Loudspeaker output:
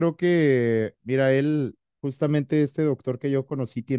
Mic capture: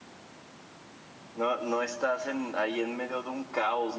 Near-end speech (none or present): present